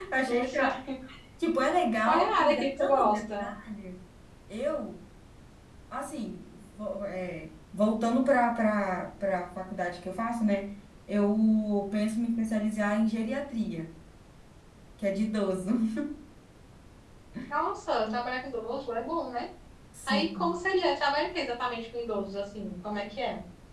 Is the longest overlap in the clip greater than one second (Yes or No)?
Yes